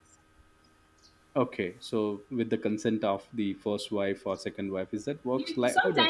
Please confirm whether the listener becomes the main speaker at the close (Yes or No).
Yes